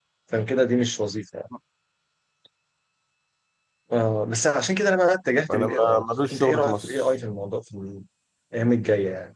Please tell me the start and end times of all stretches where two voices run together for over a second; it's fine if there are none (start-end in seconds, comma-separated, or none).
5.5-7.0